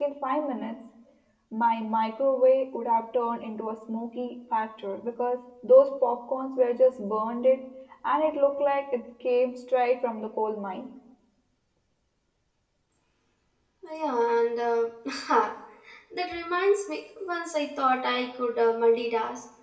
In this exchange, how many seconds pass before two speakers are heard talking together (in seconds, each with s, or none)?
none